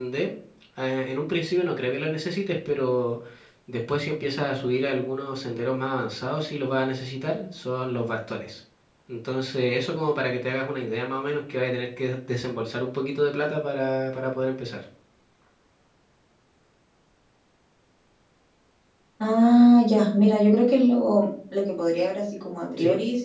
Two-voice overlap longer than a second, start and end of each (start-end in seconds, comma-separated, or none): none